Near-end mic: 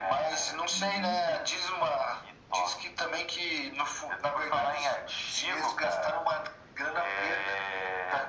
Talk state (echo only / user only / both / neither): both